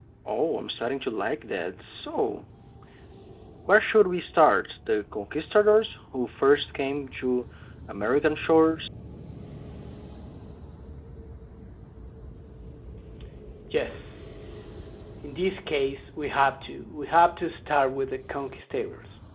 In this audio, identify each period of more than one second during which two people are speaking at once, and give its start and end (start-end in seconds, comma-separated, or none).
none